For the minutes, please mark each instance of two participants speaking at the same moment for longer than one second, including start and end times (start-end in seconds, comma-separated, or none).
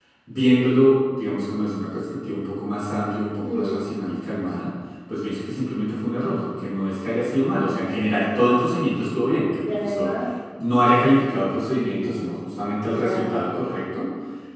none